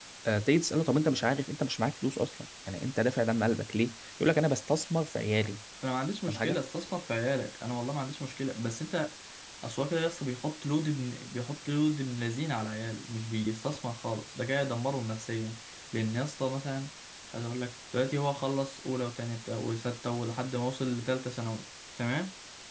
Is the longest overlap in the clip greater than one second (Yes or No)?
No